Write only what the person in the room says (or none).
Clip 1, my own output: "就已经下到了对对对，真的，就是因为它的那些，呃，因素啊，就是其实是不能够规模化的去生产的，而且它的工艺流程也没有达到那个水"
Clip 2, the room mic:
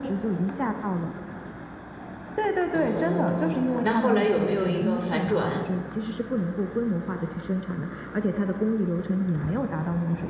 哦，那后来有没有一个反转？